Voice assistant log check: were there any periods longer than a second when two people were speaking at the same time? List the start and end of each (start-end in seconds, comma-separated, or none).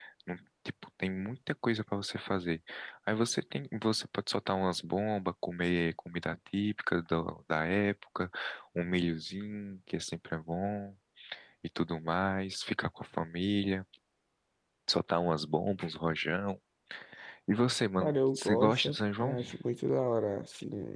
18.0-19.4